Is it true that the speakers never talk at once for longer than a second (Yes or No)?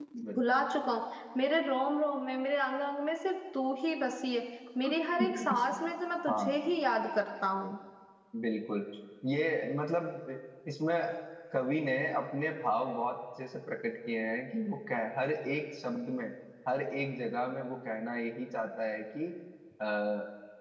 Yes